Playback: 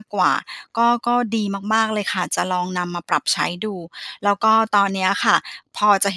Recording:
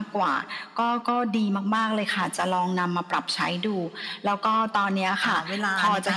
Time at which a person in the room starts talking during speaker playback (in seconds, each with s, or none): 5.2 s